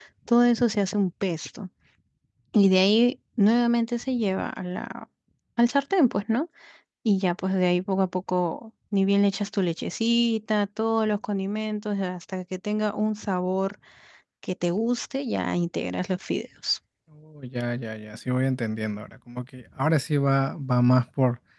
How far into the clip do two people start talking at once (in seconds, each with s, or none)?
none